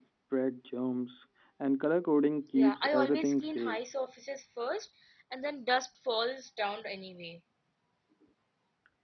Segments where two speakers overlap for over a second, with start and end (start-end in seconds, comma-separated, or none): 2.5-3.8